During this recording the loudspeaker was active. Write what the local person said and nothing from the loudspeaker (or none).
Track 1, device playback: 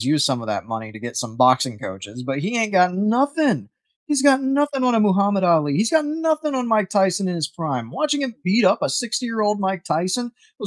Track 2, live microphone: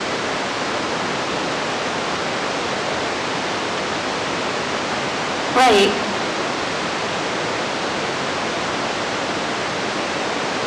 Right.